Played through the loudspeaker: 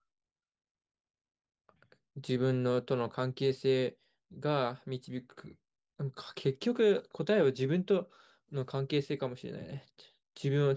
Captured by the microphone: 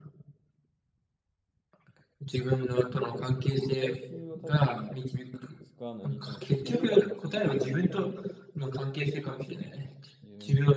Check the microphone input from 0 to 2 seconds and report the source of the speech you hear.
neither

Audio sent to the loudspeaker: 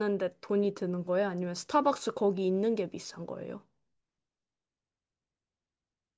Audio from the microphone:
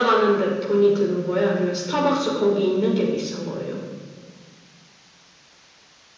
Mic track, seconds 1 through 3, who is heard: echo only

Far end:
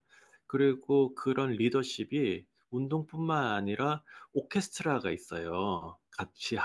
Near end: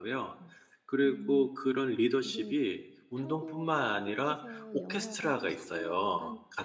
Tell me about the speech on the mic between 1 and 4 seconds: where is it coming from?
both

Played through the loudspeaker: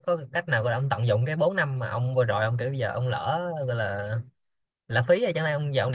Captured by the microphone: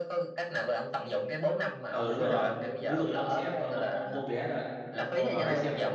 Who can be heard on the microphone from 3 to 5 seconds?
both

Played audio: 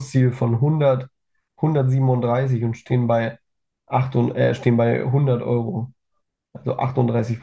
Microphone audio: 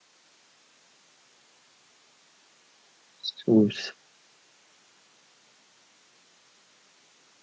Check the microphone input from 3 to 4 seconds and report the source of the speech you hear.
user only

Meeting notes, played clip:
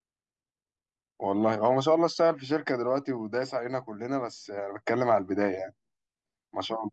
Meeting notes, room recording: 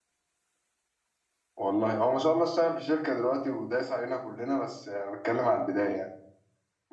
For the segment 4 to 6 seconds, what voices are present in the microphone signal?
echo only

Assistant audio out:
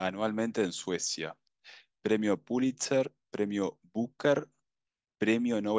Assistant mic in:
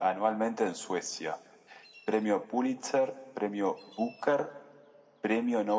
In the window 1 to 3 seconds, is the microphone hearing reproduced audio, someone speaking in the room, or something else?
echo only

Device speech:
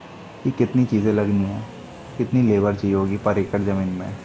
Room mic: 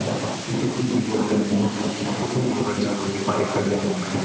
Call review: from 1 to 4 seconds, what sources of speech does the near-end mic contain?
echo only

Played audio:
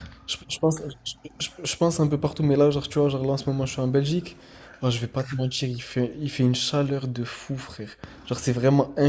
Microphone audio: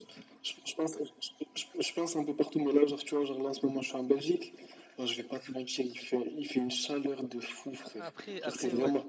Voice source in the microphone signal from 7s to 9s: both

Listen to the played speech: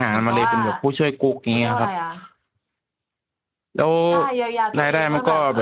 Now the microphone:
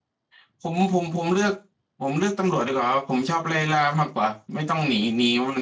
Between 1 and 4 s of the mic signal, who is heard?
user only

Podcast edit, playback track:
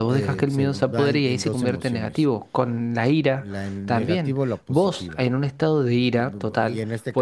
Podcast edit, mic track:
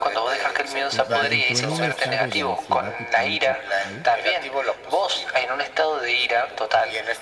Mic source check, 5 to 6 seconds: echo only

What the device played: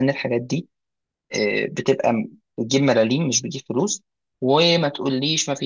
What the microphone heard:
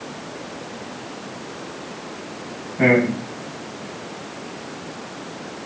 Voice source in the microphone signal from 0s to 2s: neither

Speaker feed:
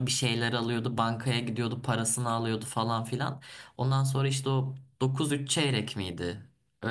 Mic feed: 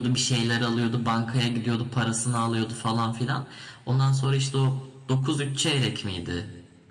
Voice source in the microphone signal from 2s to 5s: echo only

